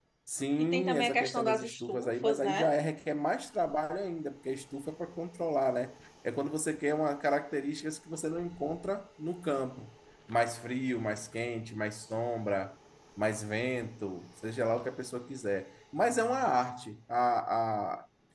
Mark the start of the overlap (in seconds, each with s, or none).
0.6 s